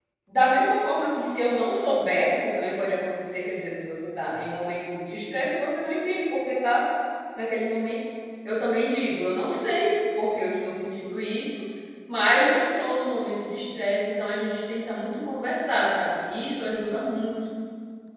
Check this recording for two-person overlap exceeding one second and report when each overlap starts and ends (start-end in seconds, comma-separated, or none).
none